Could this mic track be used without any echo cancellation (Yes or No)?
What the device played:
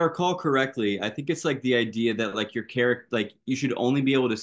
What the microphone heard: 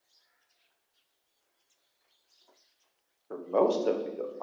Yes